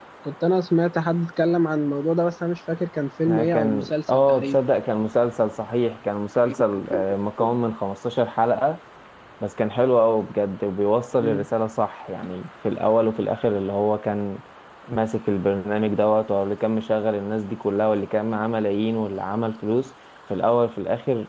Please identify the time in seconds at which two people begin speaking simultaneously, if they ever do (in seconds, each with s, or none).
3.3 s